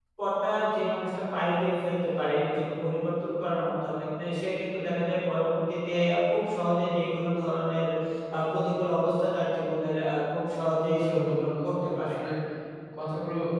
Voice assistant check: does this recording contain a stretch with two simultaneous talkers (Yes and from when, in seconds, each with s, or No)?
Yes, from 10.8 s